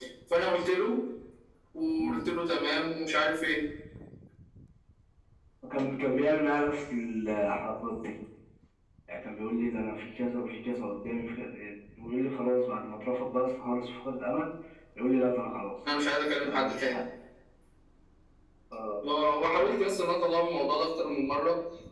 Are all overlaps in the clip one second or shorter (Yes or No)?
Yes